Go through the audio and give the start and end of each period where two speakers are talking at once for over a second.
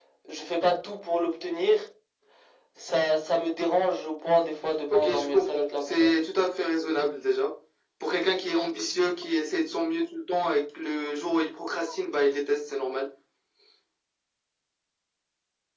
4.9-6.1

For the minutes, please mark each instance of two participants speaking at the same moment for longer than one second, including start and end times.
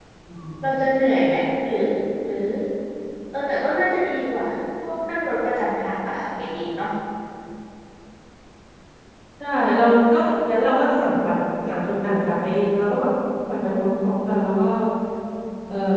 none

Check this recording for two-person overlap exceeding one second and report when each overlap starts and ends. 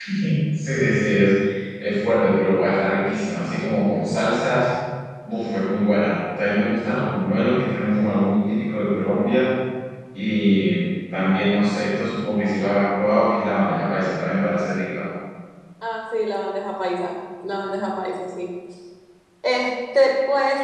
none

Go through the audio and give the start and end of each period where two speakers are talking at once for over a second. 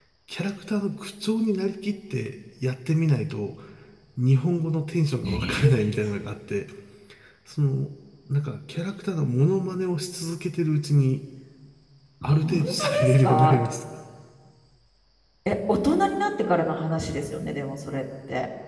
12.2-13.6

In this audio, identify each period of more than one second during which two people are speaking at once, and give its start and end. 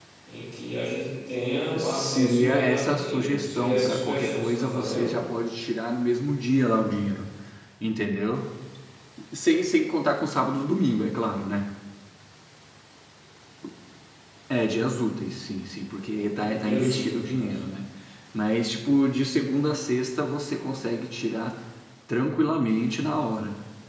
1.8-5.2, 16.2-17.6

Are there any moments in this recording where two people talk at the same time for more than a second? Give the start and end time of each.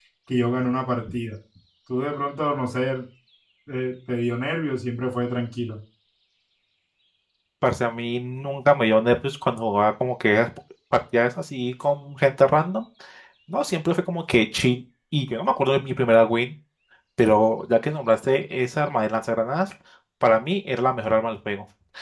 none

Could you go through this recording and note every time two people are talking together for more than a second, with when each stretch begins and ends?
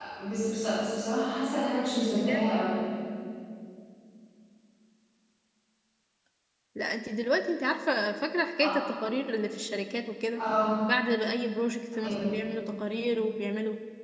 none

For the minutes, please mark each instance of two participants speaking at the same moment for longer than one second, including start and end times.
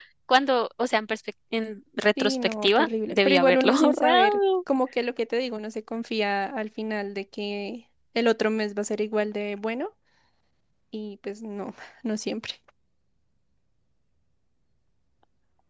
2.2-4.4

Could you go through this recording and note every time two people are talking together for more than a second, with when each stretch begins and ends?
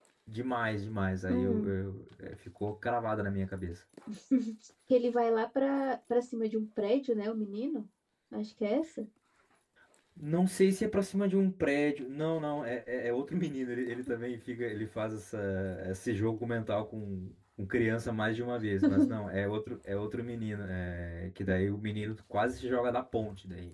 none

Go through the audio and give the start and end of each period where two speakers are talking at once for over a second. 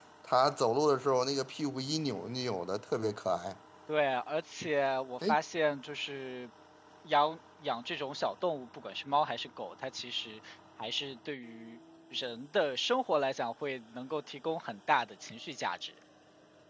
none

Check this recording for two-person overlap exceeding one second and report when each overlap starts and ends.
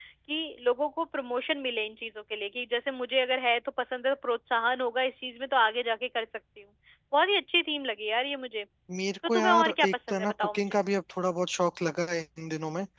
9.3-10.8

